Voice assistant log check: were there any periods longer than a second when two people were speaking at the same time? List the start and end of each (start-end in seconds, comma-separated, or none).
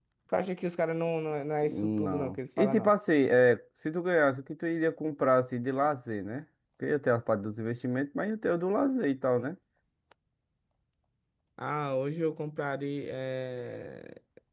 1.7-2.9